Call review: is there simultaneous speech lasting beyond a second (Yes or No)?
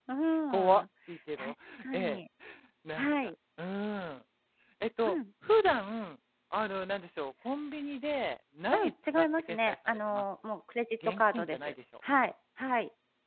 Yes